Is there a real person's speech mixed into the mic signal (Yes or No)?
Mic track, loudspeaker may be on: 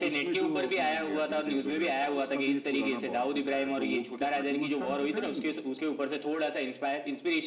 No